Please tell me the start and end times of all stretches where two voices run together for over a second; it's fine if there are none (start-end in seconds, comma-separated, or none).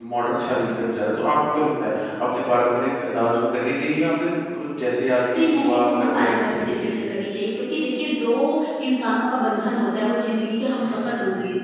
5.3-7.0